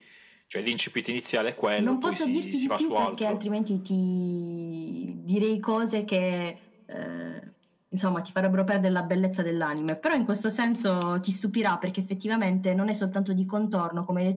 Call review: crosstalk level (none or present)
present